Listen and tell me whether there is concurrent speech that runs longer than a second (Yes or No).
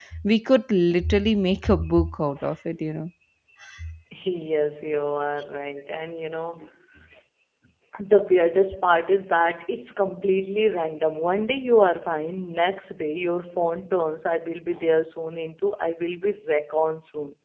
No